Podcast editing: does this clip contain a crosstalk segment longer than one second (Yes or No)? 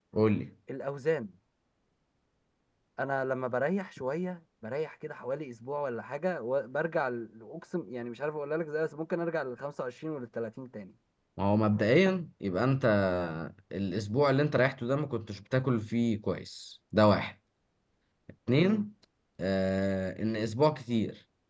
No